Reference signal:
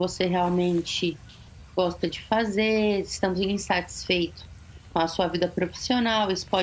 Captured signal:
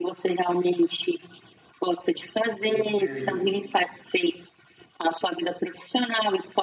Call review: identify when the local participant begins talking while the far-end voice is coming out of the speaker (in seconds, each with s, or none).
2.4 s